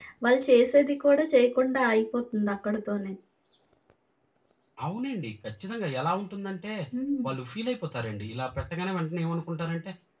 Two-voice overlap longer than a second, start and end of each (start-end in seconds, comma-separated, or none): none